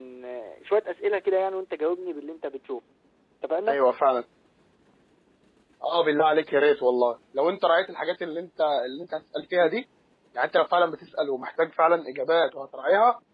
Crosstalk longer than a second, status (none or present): none